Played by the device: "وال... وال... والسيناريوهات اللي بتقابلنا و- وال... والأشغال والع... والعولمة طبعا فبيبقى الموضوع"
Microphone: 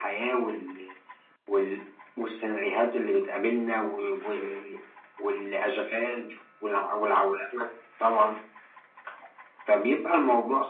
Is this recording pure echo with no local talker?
Yes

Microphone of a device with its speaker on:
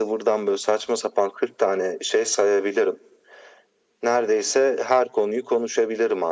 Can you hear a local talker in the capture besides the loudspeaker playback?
No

